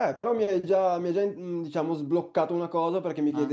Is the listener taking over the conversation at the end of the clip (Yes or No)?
No